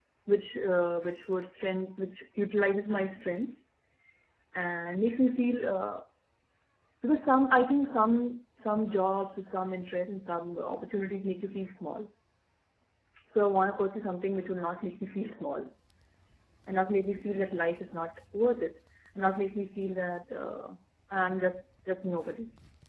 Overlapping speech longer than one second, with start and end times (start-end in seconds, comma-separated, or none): none